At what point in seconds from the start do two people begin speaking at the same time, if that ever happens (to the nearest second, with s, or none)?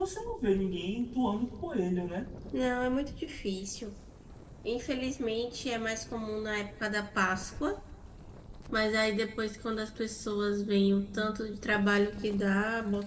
none